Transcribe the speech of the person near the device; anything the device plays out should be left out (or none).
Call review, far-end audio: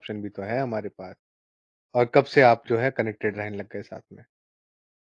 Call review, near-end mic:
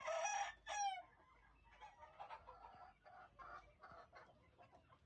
none